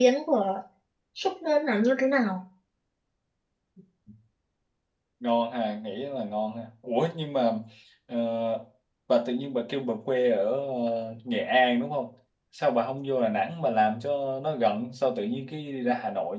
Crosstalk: none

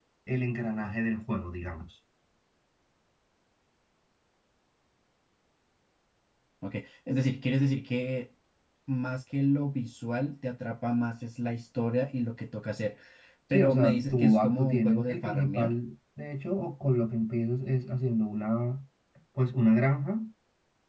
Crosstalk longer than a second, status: present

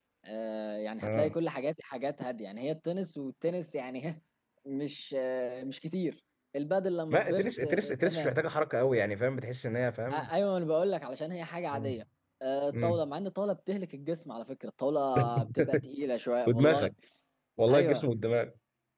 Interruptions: present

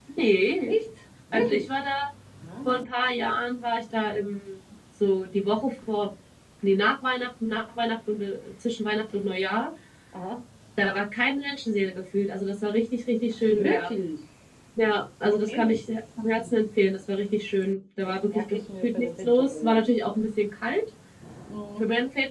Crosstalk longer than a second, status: present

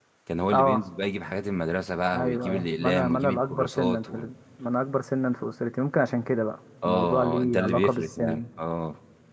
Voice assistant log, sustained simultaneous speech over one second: present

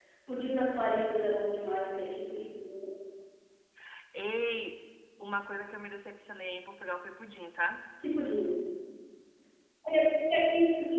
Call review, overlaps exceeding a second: none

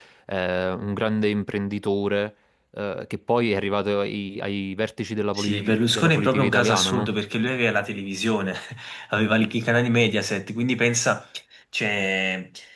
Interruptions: present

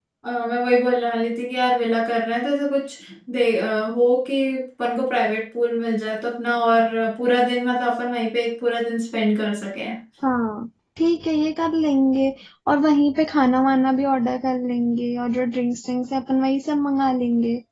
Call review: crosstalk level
none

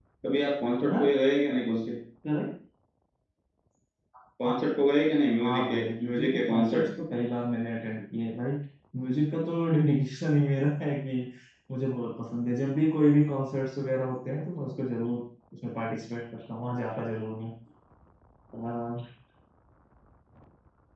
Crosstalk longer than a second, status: present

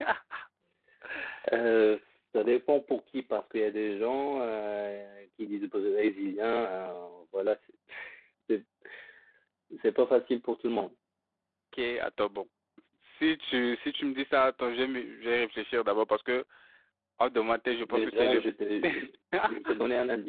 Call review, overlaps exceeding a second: none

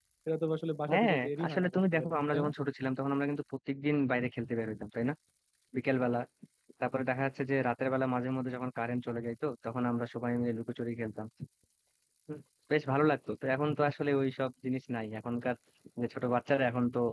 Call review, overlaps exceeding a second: present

